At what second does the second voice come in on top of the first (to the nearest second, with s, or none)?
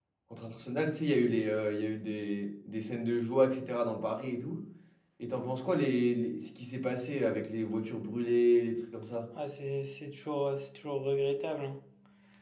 none